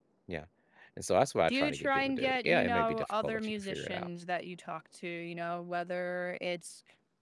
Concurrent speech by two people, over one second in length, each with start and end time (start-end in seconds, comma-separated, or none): 1.5-4.1